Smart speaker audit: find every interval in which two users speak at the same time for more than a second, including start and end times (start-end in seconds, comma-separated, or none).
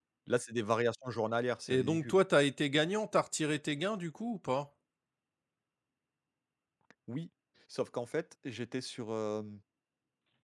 none